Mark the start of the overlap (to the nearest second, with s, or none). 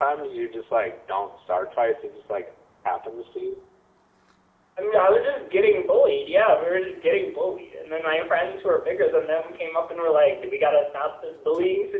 none